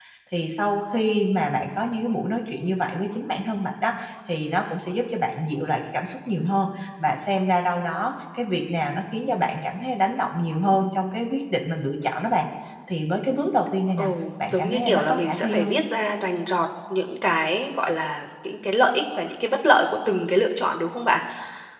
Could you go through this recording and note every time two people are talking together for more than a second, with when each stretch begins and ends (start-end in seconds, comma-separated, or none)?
14.5-15.8